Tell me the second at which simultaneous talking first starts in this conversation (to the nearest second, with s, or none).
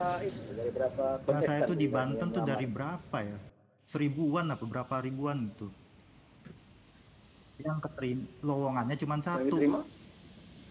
1 s